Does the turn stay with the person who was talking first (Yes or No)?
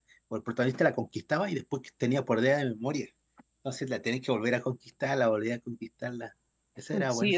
No